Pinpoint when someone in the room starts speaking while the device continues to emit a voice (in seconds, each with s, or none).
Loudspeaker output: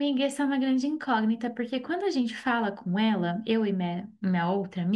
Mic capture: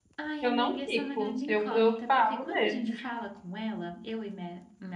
0.4 s